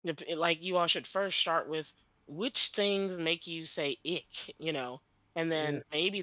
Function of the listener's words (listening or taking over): listening